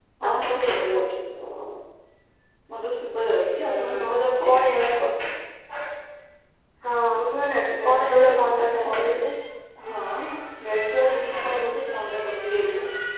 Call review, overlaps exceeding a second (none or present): present